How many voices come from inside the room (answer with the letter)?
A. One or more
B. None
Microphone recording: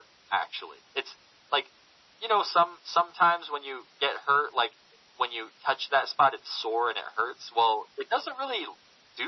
B